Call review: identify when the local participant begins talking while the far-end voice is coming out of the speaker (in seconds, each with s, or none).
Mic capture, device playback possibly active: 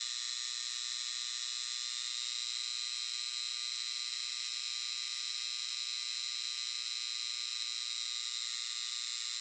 none